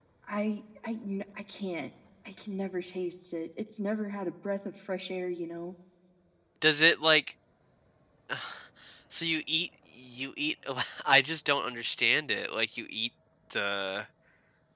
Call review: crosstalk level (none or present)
none